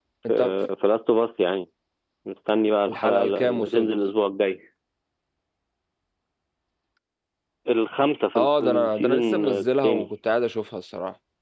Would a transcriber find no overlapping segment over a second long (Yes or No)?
No